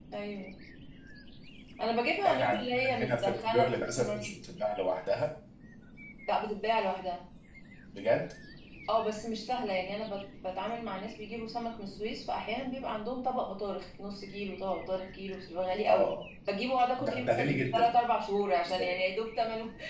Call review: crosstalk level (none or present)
present